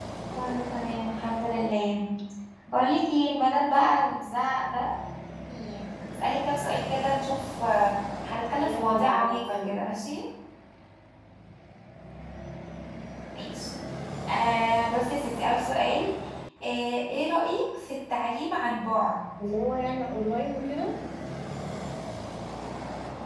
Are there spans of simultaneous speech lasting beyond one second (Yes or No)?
Yes